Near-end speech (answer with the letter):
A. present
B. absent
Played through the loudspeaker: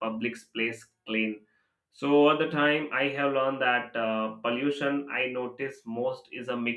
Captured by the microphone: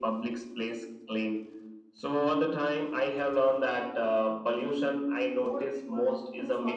A